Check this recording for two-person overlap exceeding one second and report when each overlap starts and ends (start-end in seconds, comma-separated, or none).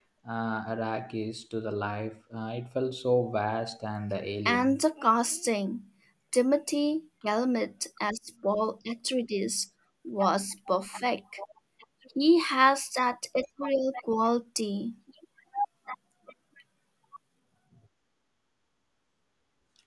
none